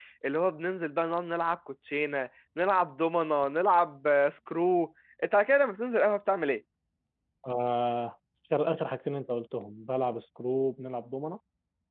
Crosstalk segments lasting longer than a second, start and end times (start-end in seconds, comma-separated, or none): none